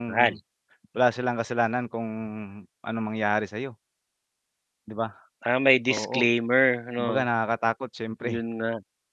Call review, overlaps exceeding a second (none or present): none